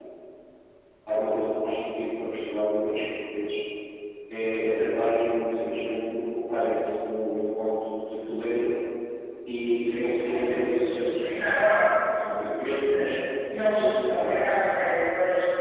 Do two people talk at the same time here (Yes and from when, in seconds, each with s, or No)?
Yes, from 9.8 s